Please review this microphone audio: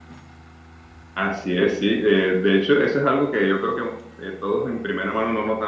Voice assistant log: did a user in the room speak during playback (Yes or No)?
Yes